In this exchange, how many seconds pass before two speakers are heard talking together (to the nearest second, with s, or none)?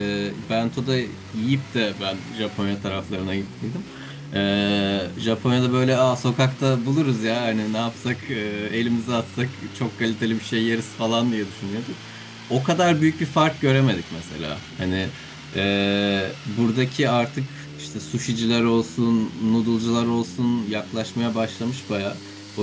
none